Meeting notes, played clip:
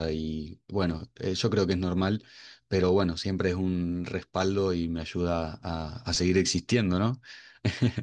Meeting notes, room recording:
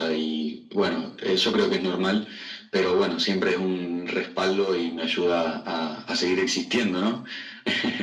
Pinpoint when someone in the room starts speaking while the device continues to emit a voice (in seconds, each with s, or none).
none